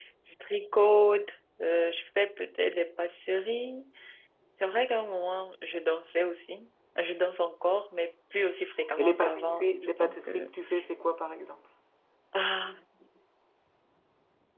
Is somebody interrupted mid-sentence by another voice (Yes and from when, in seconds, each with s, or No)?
Yes, from 9.0 s